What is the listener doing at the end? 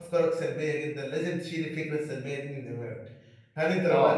listening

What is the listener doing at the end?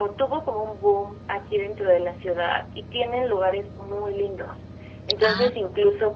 listening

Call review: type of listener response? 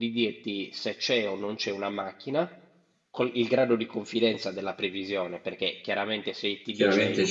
taking over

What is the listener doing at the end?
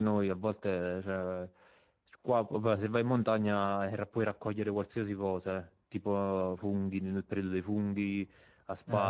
listening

